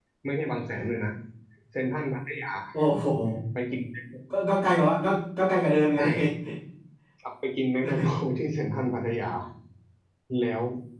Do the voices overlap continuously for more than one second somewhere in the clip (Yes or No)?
No